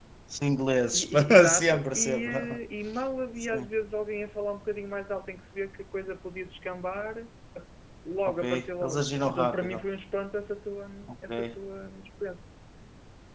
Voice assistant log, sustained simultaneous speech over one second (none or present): present